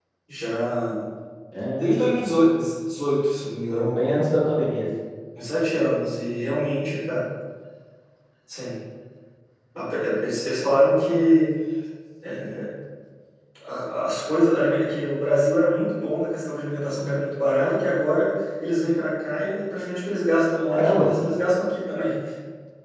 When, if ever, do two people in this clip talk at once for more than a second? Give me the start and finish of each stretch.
none

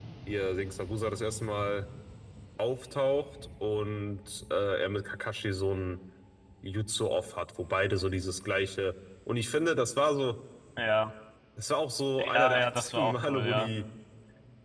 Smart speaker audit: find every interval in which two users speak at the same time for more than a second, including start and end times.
12.3-13.7

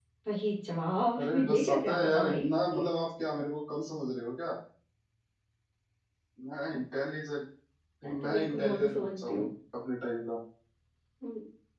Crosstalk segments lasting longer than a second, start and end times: 1.2-2.5, 8.2-9.5

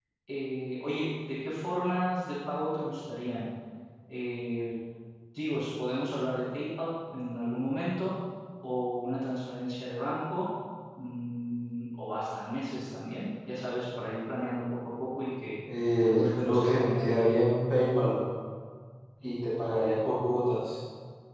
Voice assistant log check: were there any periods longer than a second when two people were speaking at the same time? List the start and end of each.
16.0-17.2

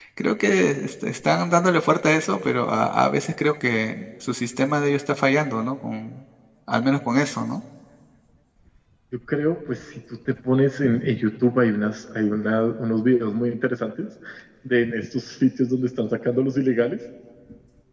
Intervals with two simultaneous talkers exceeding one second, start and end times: none

